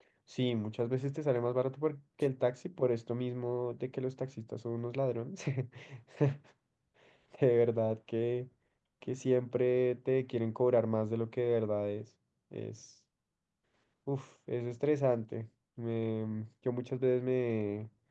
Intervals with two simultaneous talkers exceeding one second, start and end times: none

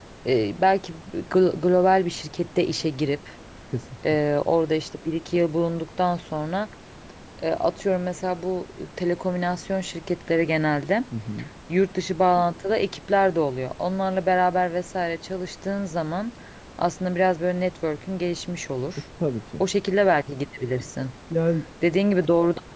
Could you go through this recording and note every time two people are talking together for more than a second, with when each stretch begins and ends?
none

